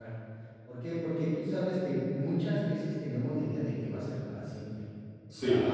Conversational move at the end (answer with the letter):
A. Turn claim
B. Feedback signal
B